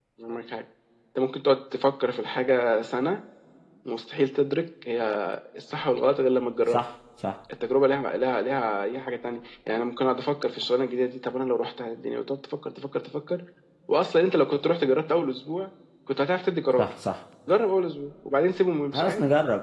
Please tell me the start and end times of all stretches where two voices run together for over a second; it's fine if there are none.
none

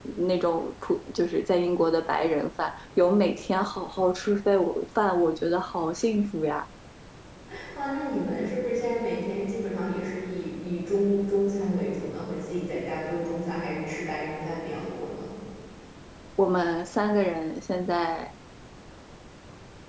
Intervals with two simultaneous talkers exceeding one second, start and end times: none

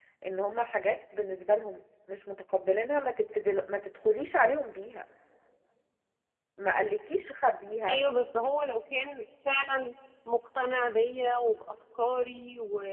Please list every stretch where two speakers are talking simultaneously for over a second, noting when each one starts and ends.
none

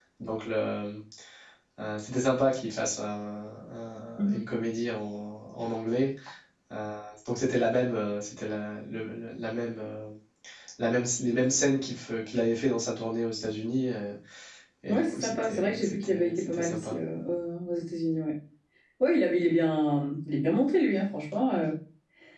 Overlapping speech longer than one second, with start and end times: 14.9-16.9

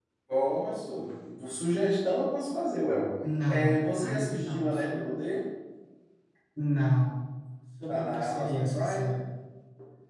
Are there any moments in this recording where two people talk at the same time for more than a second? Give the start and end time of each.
3.5-5.1, 7.9-9.2

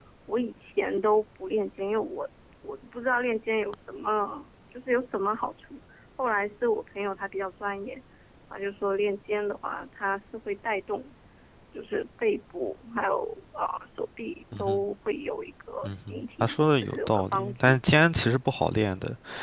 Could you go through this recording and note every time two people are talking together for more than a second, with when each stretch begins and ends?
15.8-17.8

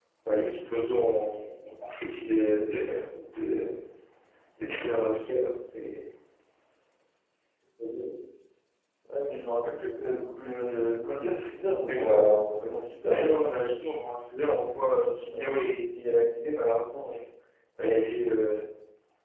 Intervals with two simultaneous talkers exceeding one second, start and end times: none

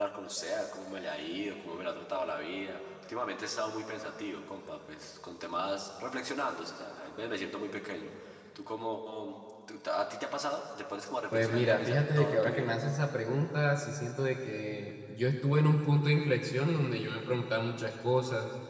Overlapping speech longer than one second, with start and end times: 11.3-12.7

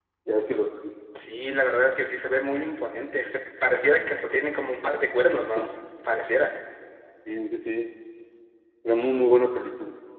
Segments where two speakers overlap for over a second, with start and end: none

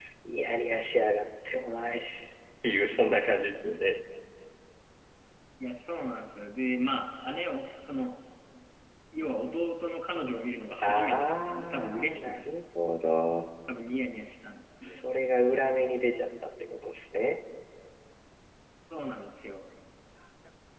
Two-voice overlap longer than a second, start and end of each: 10.8-12.4

